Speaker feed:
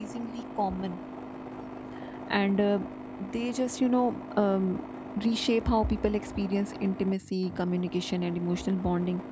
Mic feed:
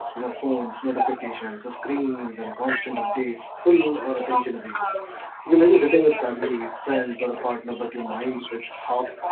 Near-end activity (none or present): present